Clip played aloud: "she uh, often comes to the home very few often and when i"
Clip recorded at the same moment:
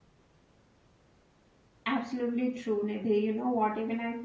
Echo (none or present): none